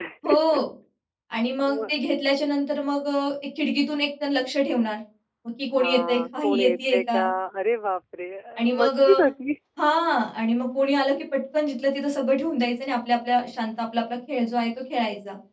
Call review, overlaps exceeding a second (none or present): present